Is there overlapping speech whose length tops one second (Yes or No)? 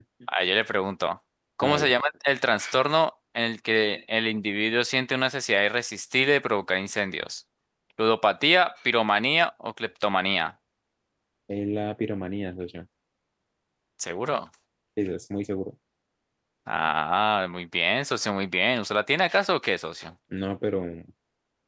No